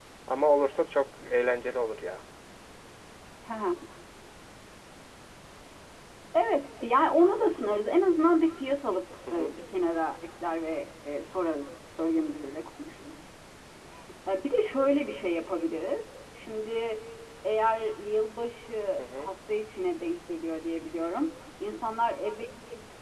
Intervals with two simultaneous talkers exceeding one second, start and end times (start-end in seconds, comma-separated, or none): none